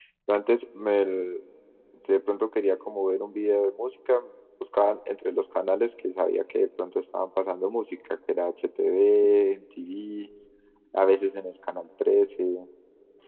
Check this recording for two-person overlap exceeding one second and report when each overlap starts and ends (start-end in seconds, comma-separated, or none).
none